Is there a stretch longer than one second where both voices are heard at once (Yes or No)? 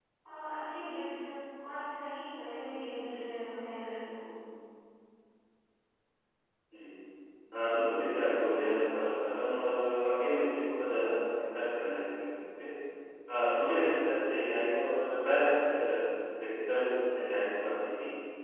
No